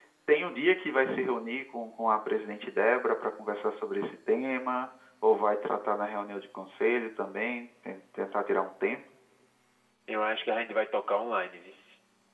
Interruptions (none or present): none